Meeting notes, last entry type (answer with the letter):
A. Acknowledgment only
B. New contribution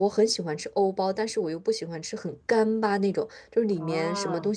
A